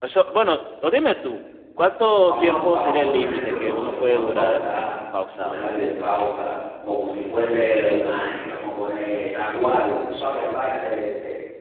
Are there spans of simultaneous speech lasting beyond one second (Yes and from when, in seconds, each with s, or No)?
Yes, from 2.3 s